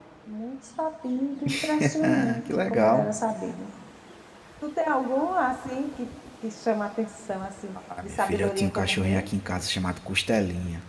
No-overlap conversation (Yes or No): No